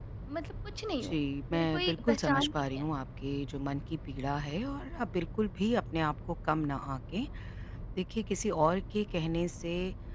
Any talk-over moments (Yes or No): Yes